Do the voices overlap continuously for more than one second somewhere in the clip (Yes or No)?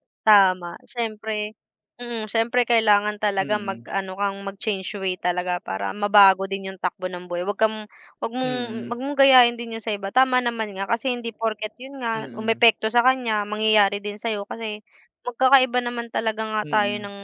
No